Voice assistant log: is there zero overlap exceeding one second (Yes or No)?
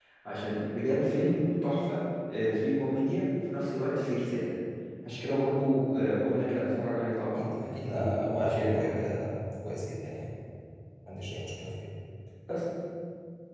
No